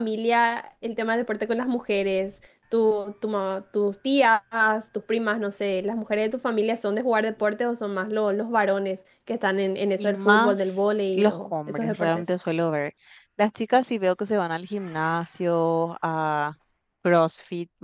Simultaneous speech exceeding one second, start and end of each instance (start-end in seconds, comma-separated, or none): 10.0-12.2